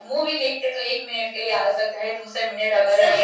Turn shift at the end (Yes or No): Yes